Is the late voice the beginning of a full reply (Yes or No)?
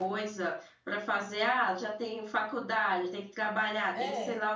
No